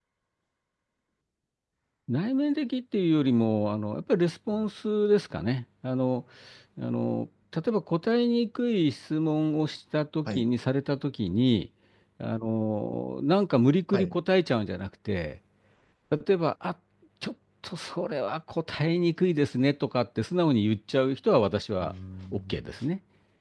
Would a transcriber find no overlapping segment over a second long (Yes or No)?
Yes